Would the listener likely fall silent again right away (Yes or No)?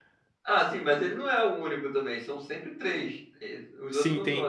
No